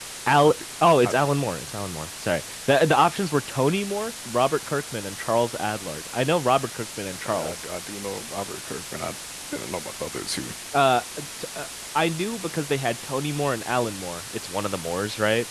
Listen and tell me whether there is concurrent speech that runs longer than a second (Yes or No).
No